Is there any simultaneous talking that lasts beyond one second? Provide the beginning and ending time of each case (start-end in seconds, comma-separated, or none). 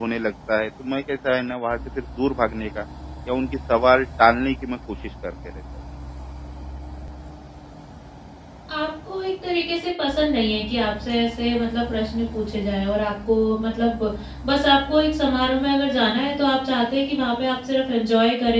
none